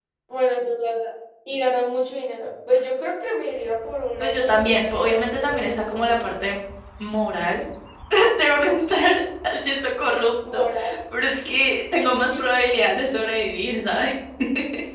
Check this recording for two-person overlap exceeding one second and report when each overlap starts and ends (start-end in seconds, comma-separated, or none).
4.2-6.2